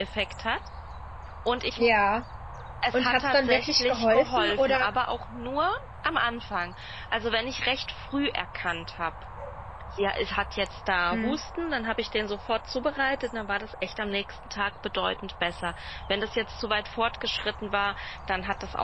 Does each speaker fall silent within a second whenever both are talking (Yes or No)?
No